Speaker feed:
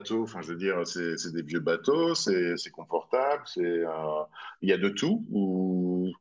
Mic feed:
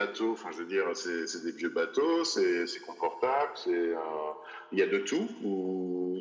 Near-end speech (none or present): none